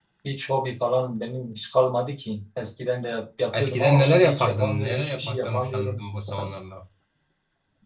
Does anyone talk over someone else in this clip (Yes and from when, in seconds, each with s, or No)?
Yes, from 3.5 s